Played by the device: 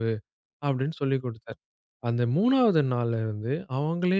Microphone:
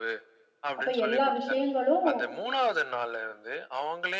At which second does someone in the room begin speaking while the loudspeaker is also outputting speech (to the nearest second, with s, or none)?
1 s